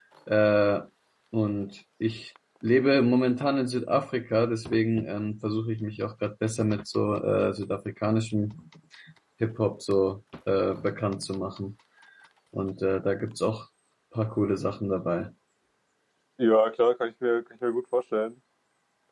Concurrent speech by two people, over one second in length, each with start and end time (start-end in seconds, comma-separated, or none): none